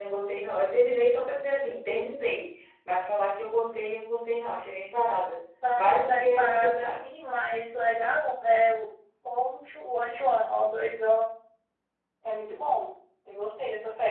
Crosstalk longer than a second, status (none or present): present